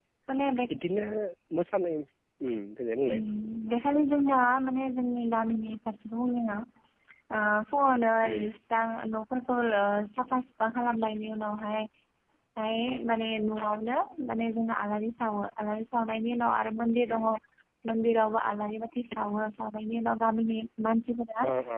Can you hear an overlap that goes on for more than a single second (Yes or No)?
No